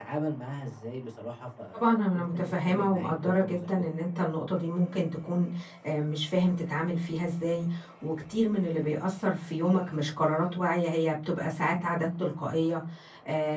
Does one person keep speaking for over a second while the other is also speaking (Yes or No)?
Yes